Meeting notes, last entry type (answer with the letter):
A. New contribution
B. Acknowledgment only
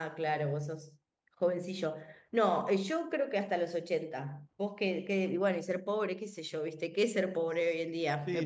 A